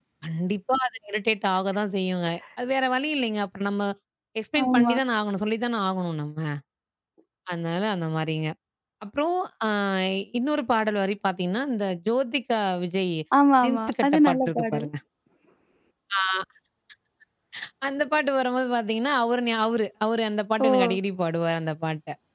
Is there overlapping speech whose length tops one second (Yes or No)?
Yes